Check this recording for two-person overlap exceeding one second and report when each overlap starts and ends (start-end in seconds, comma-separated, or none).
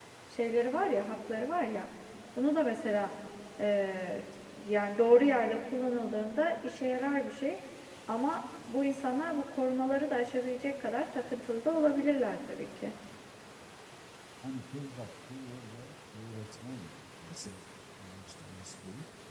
none